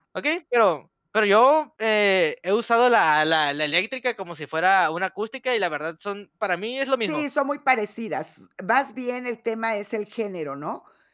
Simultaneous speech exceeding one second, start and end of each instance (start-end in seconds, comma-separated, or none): none